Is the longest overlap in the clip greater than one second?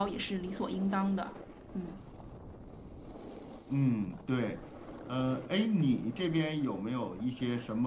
No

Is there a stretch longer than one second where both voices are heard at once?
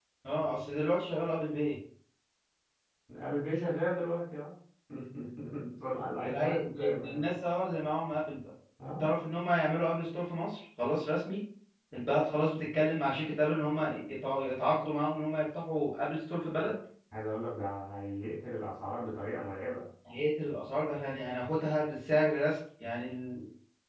Yes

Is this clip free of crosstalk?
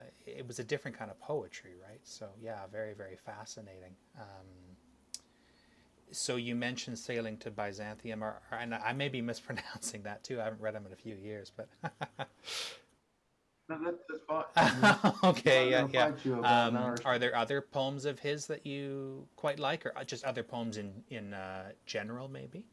No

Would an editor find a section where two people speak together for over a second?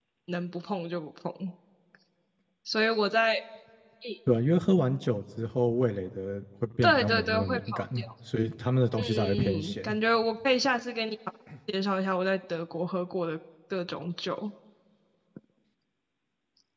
Yes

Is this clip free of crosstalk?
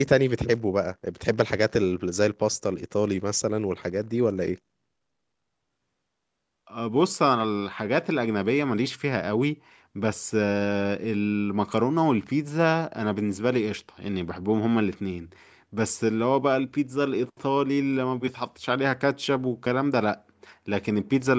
Yes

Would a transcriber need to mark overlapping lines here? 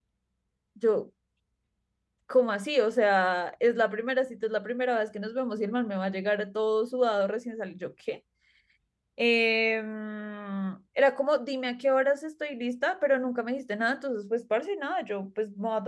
No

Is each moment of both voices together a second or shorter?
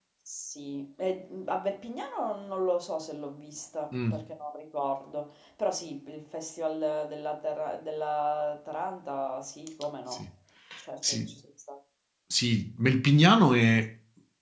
Yes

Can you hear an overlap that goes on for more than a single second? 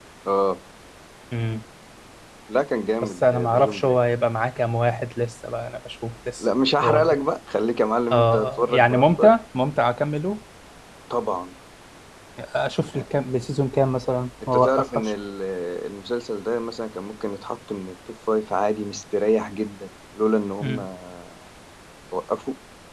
Yes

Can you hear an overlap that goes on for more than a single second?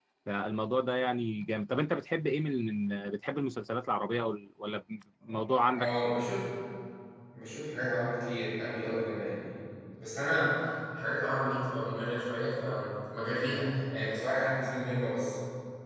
No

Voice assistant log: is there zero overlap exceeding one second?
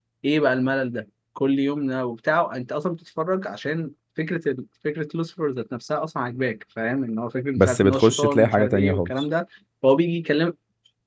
No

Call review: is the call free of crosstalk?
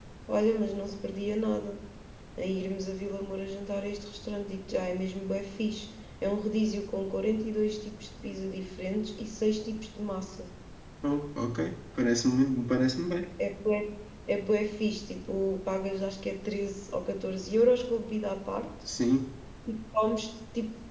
Yes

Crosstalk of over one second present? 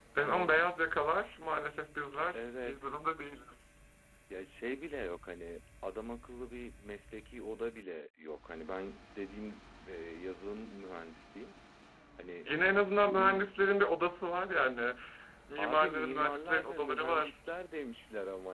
Yes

